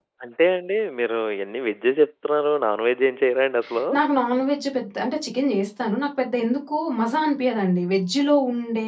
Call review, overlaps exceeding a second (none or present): none